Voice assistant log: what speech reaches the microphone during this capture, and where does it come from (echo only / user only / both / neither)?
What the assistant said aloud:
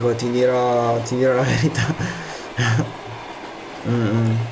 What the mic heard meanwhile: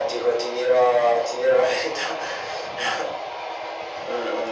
echo only